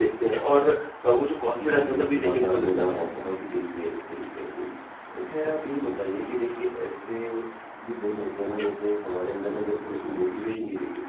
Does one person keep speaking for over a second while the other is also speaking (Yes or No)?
Yes